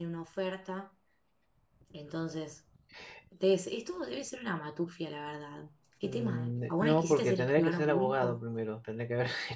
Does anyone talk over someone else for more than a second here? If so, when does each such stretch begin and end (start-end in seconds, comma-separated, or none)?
6.0-8.4